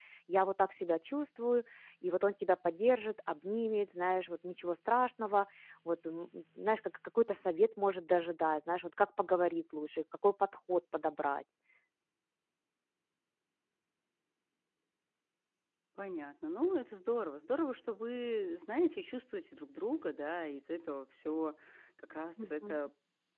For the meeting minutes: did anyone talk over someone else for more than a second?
No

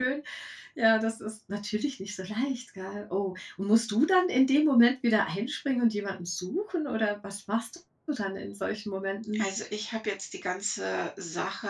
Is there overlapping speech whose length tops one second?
No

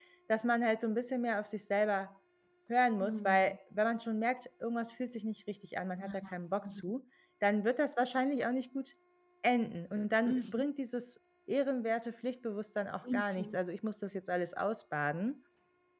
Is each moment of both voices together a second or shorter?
Yes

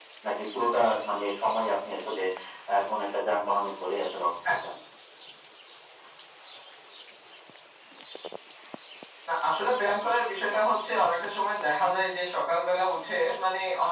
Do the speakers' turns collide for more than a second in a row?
No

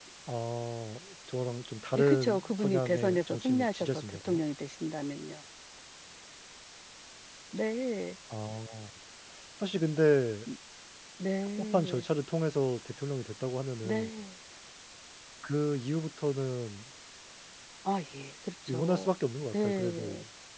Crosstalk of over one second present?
Yes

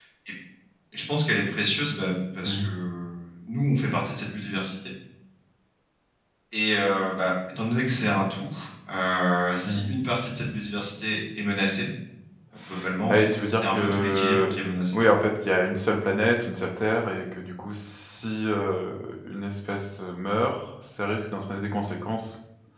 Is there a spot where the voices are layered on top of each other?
Yes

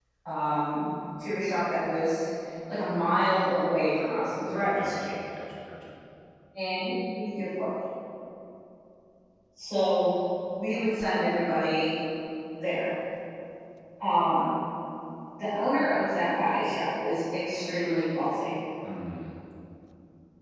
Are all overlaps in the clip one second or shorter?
Yes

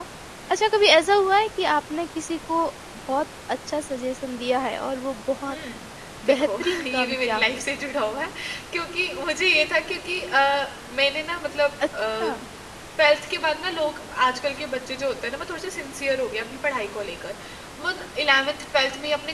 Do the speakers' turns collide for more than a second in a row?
Yes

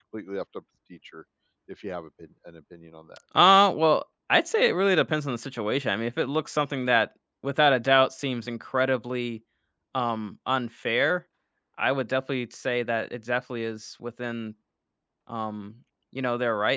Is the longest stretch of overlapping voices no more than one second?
Yes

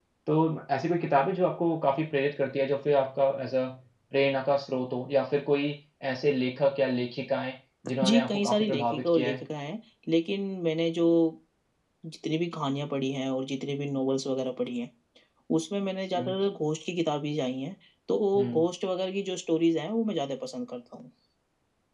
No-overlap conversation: No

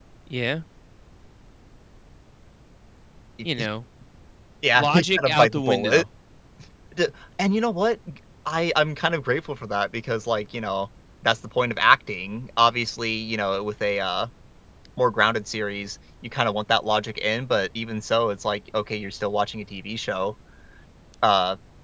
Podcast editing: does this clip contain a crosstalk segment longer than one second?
Yes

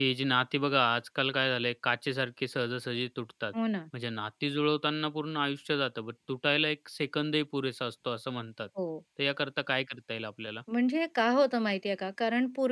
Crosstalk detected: No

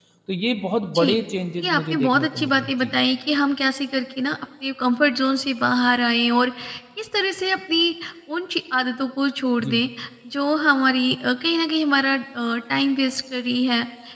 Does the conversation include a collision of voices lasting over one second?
Yes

